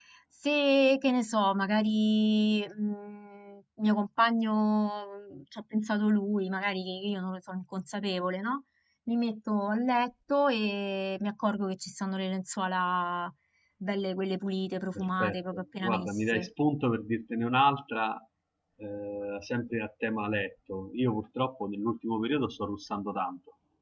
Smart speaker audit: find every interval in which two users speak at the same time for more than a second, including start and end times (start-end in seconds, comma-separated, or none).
14.9-16.4